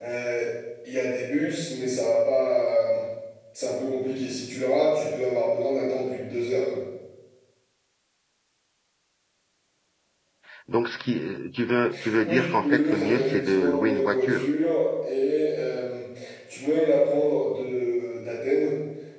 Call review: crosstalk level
present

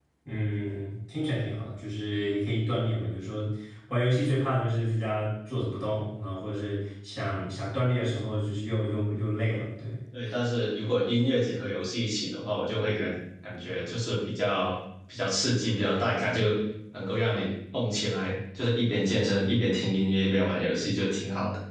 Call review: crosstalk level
none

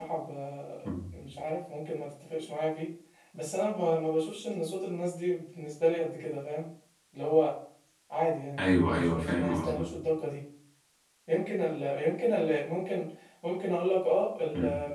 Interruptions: present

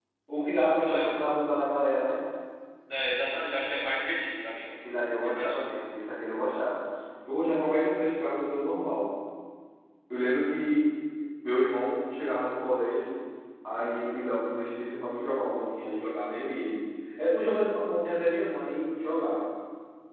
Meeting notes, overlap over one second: none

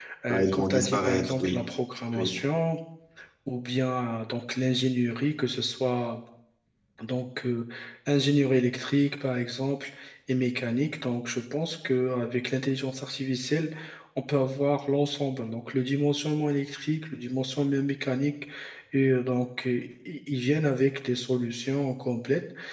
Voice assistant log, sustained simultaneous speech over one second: present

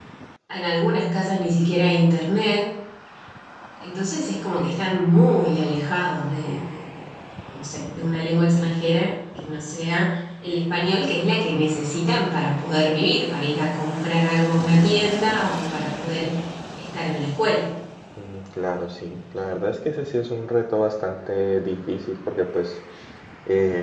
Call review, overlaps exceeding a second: none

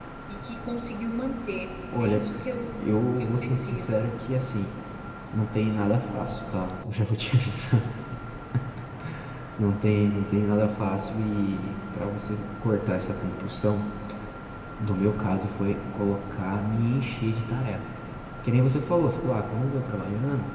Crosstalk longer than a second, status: present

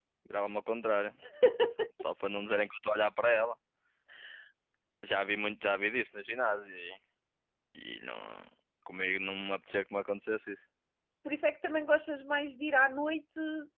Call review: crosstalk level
none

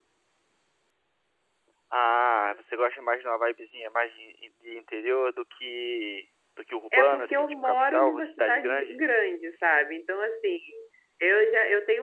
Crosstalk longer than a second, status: present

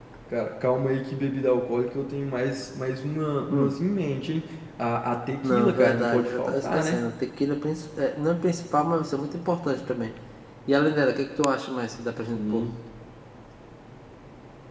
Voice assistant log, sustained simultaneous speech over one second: present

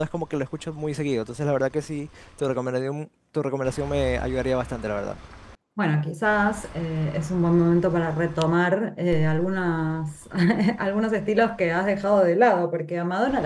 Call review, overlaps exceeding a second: none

